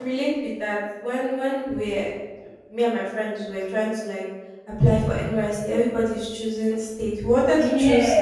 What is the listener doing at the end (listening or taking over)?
listening